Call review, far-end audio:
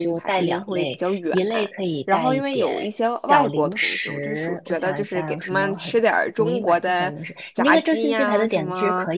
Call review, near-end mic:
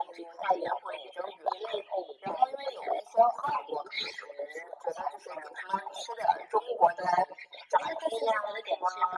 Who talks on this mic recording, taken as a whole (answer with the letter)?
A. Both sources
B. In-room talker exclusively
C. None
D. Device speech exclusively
D